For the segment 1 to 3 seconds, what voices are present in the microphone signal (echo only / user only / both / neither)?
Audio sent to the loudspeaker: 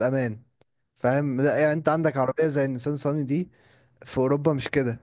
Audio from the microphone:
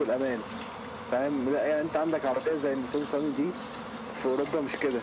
echo only